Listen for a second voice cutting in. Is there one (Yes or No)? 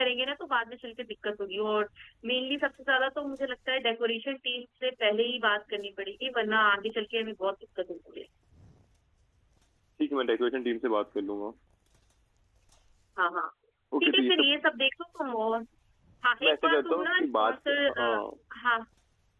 Yes